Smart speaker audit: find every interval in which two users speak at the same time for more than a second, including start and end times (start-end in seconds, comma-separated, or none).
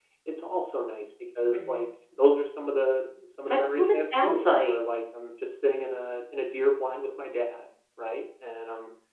3.5-4.8